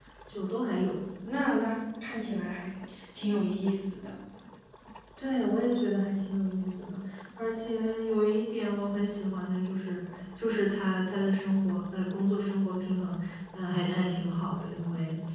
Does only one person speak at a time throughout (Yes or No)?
Yes